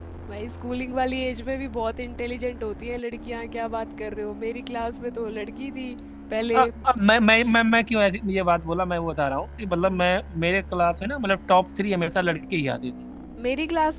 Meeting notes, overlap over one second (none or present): none